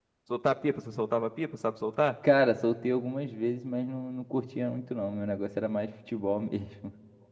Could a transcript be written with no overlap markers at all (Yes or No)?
Yes